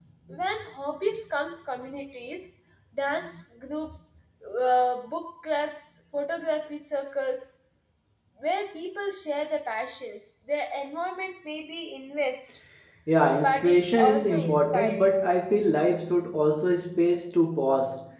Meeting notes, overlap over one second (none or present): present